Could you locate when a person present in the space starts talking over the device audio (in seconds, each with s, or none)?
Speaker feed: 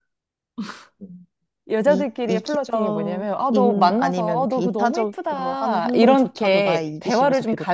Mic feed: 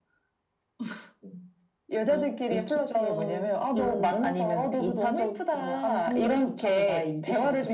none